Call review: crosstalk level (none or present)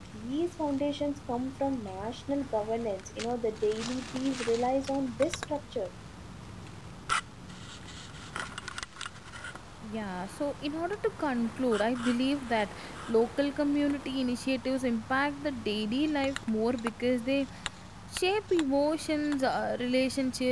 none